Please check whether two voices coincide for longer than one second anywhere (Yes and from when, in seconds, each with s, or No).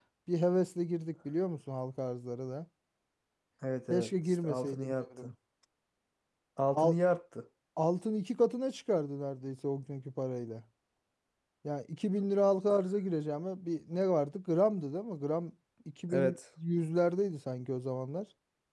Yes, from 3.9 s